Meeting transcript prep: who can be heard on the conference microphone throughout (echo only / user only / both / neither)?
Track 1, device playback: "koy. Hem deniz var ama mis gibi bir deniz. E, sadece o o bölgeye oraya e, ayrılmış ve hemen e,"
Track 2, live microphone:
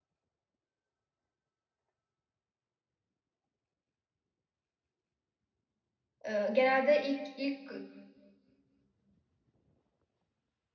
user only